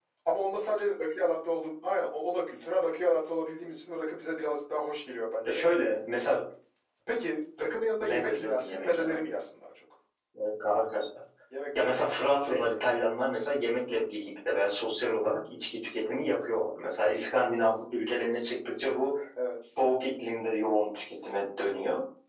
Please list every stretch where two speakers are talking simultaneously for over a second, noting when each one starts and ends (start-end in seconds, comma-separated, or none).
8.0-9.2, 11.8-13.1